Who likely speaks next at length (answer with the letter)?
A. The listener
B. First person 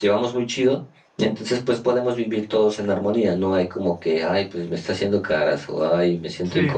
A